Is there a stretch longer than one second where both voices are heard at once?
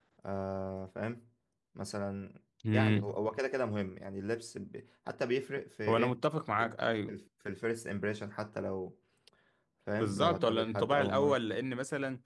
Yes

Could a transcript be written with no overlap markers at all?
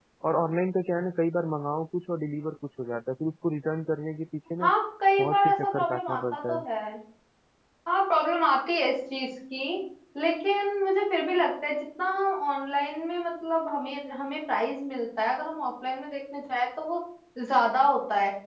No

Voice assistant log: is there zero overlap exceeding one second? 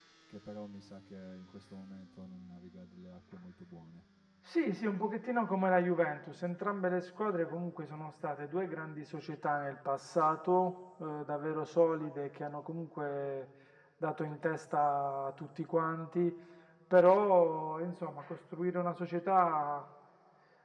Yes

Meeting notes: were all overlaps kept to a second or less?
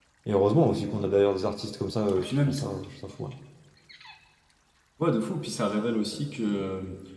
Yes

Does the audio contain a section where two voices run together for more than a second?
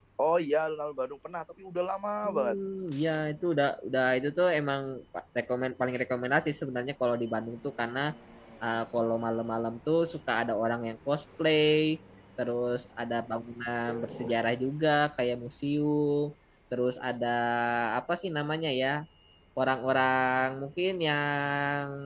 No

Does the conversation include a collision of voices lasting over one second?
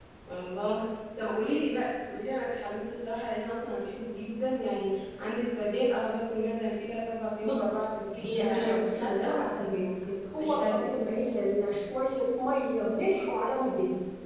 Yes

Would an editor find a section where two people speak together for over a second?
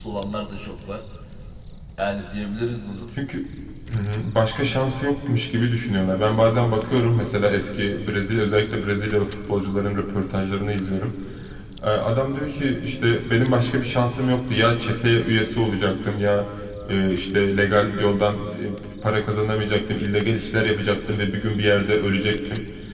No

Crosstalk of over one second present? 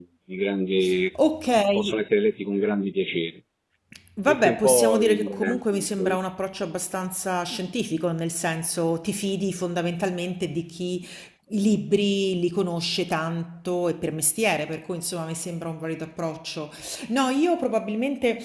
Yes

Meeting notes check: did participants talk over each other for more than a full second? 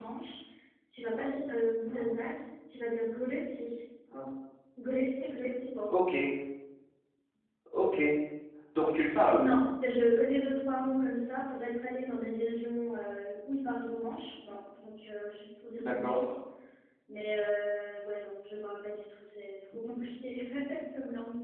No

